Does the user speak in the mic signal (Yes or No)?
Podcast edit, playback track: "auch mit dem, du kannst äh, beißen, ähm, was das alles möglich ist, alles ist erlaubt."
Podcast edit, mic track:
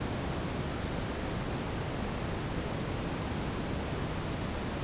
No